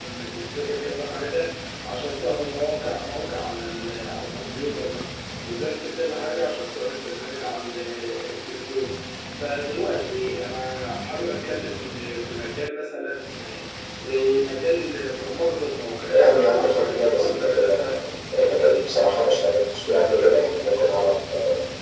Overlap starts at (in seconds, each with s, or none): 16.1 s